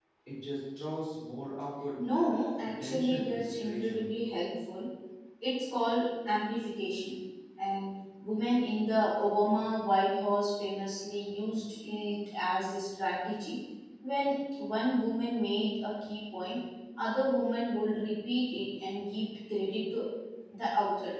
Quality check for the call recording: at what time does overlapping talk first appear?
2.8 s

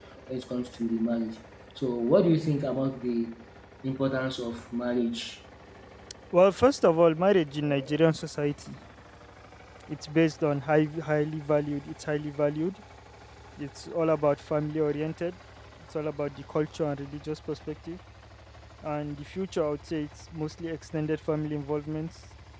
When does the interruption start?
none

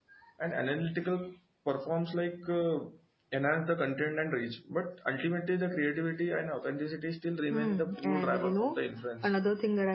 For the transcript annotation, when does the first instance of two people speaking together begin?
7.5 s

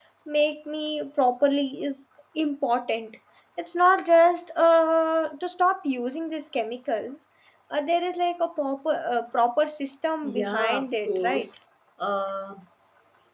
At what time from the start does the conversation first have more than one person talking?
10.2 s

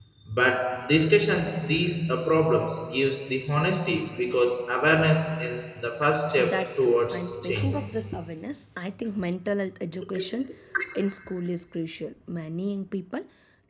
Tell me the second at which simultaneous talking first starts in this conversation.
6.4 s

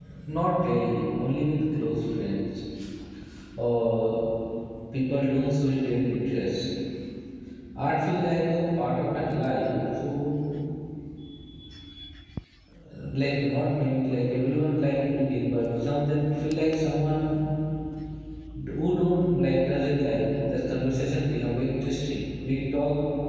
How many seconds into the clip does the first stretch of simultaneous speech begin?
none

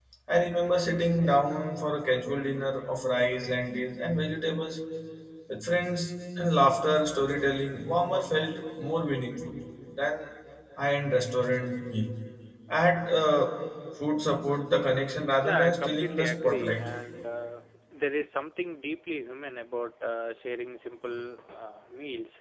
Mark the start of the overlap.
15.4 s

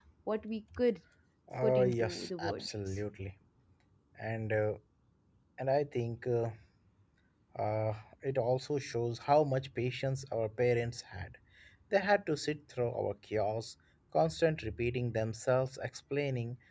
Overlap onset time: 1.6 s

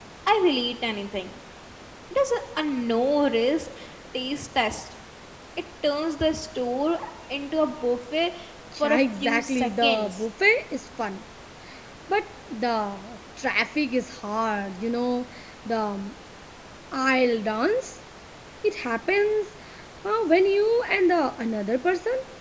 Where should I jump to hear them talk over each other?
8.8 s

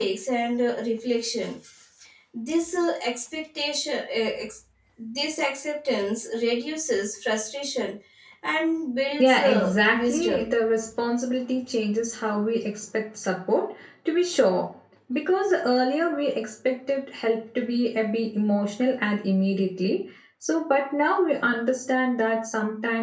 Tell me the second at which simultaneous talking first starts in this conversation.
9.2 s

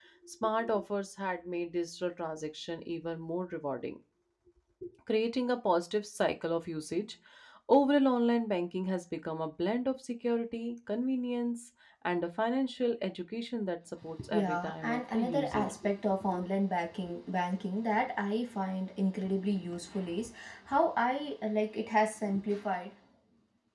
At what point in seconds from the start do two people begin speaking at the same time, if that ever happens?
14.2 s

